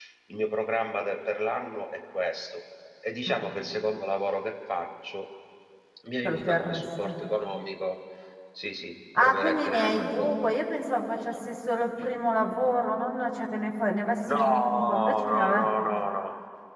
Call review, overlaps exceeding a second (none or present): present